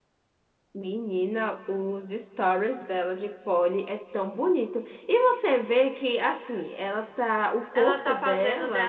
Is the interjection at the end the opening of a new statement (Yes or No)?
Yes